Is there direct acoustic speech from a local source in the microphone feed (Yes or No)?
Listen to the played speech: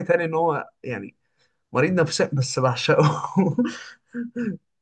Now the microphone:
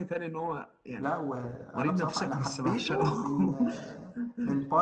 Yes